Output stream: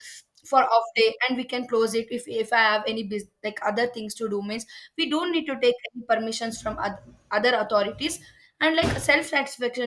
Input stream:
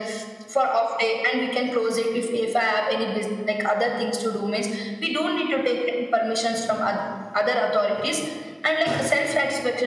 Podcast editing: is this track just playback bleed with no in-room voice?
Yes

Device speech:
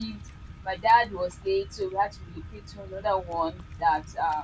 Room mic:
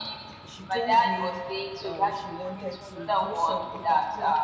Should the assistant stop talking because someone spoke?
Yes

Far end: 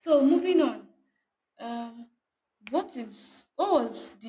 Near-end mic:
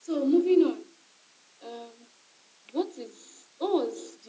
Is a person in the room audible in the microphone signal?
No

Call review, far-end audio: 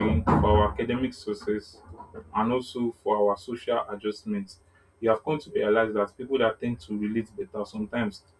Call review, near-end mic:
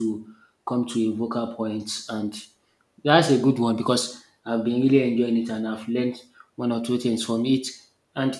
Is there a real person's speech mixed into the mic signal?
Yes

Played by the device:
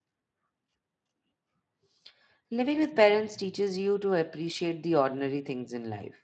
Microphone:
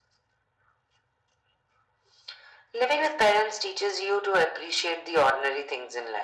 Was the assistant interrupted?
No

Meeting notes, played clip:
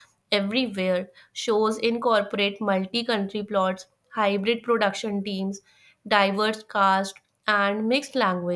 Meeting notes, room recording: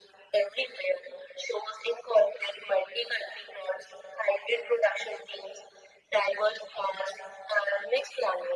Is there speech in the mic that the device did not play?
No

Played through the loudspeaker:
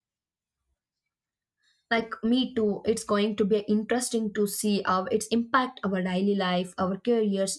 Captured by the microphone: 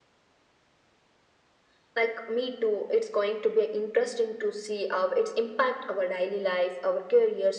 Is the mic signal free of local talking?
Yes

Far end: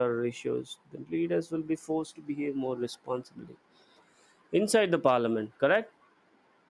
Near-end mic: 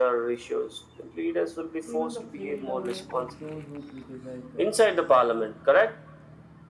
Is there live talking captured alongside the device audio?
Yes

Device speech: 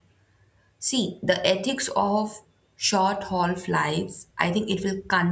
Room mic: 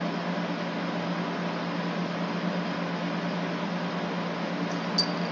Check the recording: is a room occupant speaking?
No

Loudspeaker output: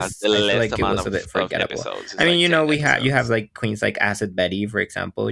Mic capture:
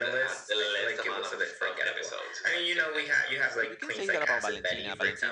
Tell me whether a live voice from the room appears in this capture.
Yes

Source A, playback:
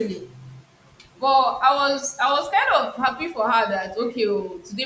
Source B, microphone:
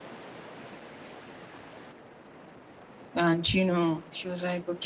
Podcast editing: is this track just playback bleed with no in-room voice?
No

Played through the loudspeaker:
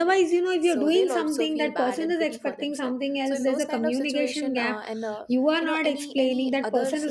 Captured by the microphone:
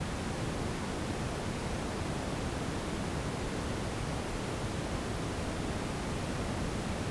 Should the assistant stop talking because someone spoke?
No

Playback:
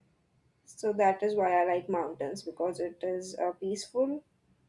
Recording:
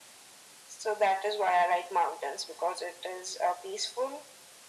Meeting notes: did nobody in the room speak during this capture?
Yes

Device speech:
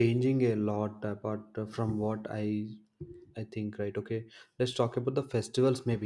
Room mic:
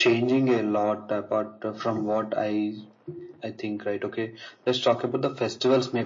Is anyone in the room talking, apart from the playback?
No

